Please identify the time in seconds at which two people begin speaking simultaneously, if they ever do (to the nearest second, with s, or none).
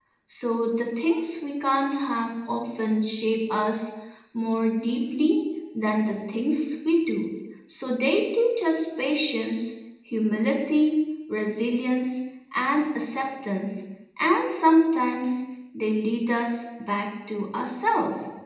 none